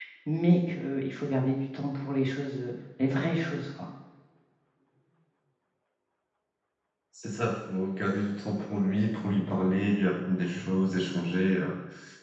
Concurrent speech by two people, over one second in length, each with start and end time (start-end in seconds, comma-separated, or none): none